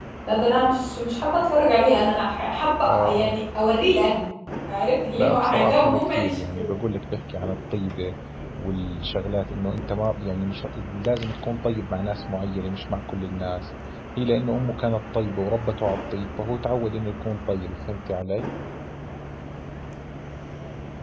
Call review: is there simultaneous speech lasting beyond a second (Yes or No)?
Yes